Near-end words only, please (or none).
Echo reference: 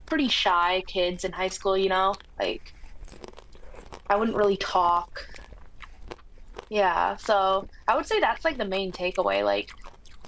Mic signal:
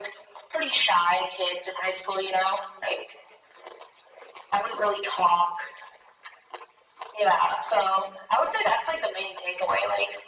none